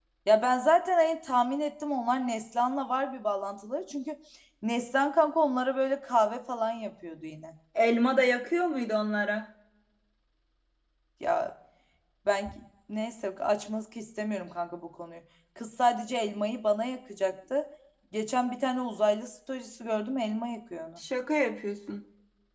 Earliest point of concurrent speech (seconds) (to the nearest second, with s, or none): none